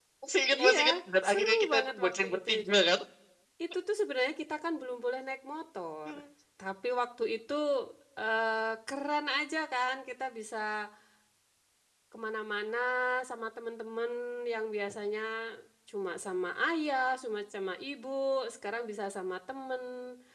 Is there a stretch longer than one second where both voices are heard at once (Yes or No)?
Yes